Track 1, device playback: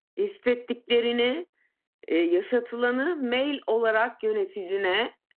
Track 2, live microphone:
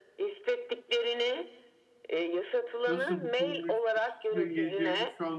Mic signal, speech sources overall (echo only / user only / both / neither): both